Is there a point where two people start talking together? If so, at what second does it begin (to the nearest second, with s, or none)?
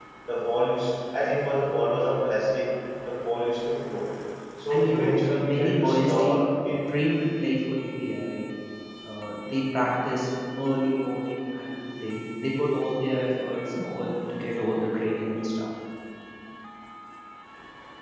5 s